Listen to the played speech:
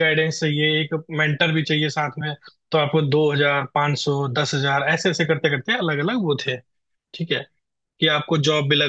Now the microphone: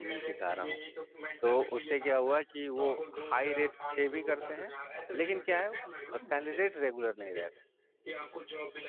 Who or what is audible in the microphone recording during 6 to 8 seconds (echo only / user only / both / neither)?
both